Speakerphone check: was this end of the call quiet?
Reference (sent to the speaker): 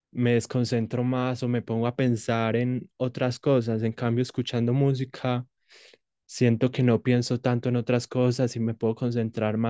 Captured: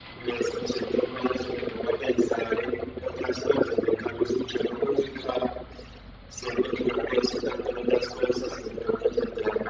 Yes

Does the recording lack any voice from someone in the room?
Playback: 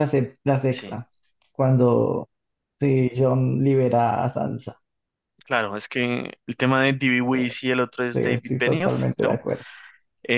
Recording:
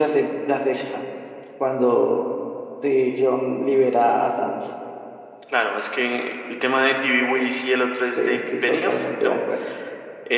Yes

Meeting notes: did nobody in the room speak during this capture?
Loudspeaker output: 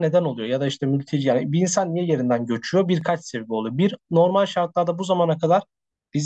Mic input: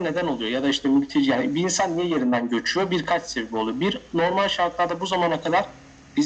Yes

